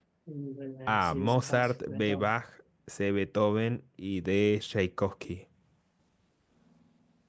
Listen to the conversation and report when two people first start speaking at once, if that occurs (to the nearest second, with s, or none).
1 s